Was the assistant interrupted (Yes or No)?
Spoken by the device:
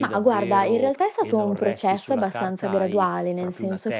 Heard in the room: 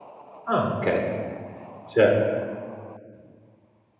Yes